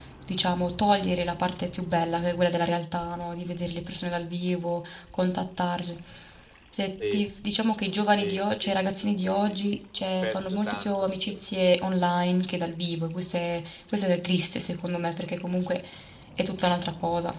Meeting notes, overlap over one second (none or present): present